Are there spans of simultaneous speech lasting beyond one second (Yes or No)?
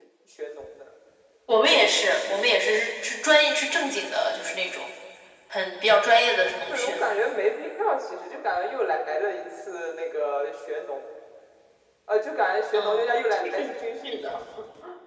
No